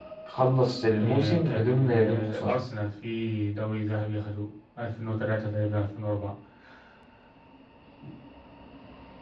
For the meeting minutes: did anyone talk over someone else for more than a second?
Yes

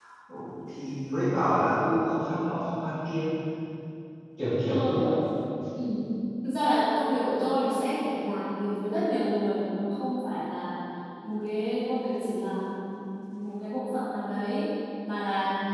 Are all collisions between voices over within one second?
Yes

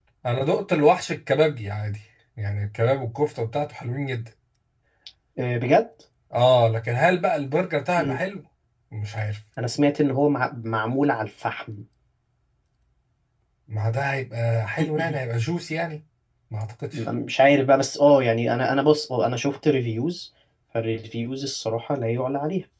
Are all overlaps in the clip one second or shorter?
Yes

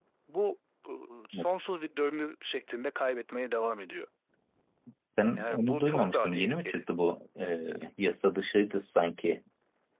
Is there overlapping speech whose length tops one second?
Yes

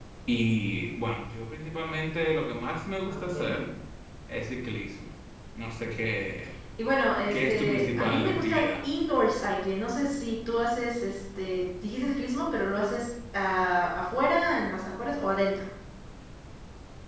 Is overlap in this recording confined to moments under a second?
No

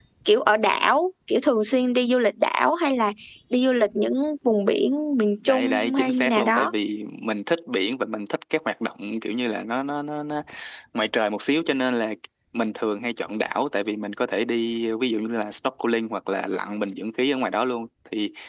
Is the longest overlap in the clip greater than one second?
Yes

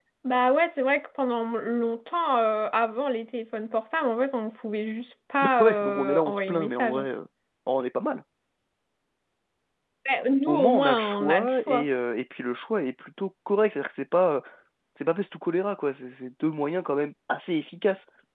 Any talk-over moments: Yes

